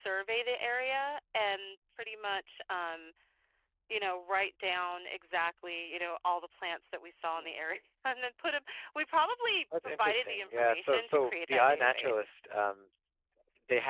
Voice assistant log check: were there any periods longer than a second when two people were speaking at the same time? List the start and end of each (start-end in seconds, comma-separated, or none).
9.8-12.3